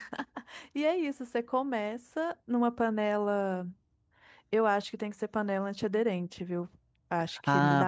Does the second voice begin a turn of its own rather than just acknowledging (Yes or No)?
Yes